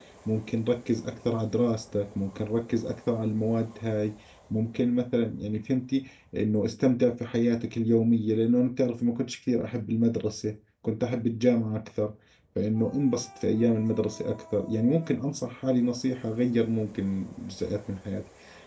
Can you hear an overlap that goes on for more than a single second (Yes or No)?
No